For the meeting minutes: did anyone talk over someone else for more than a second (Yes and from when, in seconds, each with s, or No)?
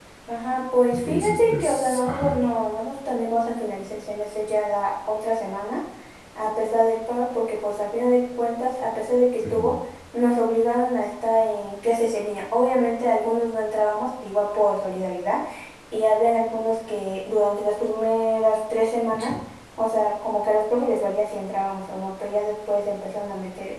Yes, from 0.9 s